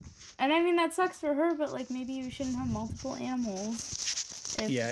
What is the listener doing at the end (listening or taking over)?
taking over